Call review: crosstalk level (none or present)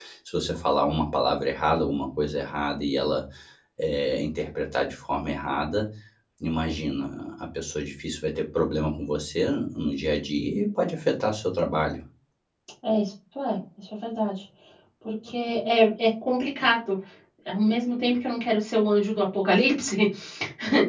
none